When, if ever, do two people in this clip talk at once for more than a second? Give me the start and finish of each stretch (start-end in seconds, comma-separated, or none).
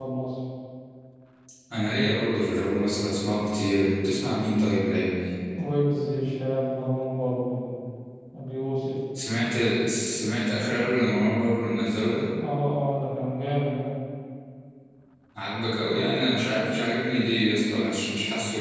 none